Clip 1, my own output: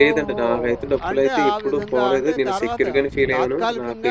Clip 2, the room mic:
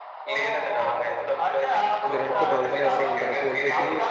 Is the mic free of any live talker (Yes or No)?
No